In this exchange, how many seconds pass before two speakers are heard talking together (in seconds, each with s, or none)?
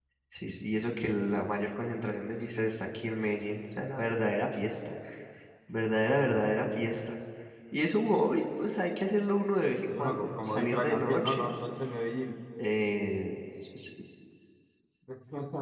9.9 s